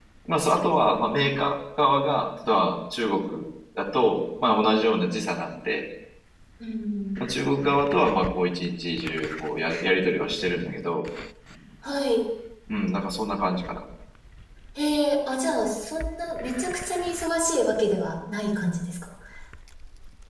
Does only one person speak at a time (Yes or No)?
Yes